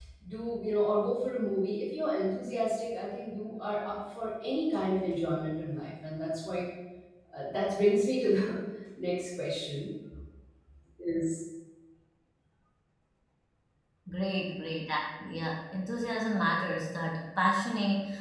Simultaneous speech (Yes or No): No